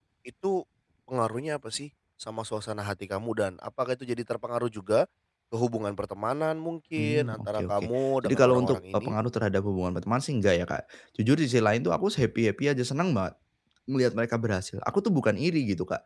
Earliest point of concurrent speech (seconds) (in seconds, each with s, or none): 7.0 s